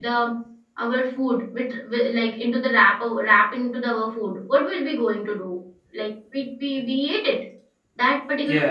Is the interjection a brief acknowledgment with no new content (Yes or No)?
Yes